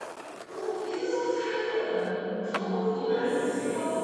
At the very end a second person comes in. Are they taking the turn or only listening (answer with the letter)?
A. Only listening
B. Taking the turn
B